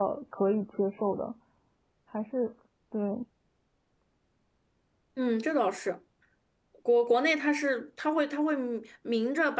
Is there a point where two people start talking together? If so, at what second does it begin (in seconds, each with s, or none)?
none